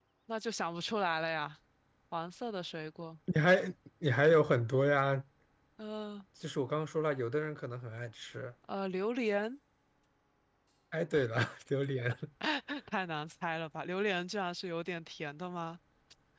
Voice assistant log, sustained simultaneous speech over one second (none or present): none